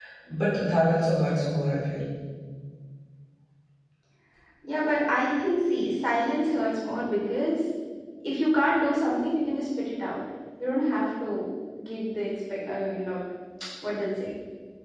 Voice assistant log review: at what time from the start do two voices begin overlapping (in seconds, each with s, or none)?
none